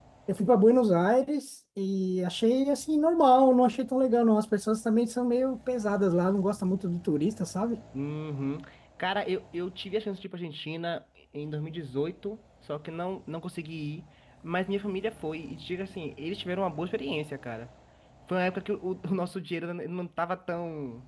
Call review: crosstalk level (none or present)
none